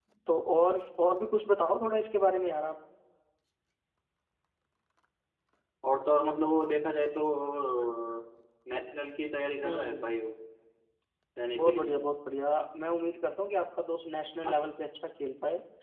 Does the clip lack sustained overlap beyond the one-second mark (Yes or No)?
Yes